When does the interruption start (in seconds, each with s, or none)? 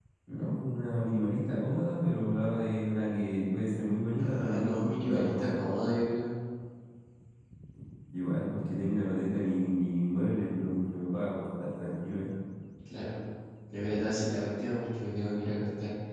4.2 s